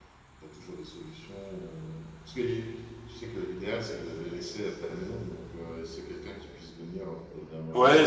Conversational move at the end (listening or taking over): taking over